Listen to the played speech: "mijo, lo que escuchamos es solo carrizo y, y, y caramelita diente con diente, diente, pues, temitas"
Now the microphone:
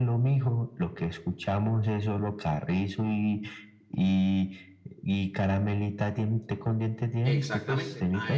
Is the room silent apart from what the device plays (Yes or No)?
No